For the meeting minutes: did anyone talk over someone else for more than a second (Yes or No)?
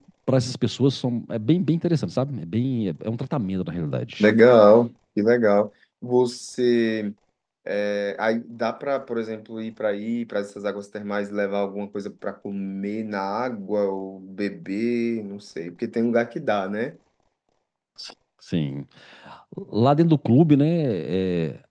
No